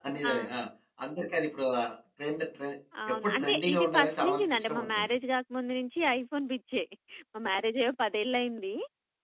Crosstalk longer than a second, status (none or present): present